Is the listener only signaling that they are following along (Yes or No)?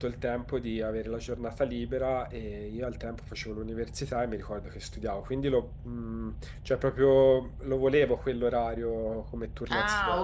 No